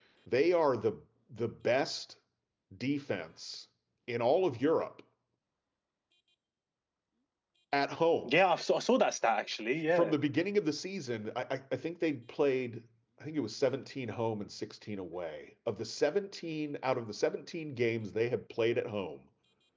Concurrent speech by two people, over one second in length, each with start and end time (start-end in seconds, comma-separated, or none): none